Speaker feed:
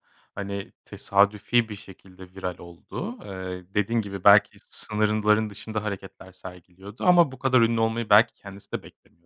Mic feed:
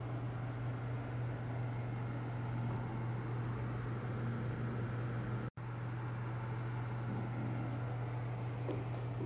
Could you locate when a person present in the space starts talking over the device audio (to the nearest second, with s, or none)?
none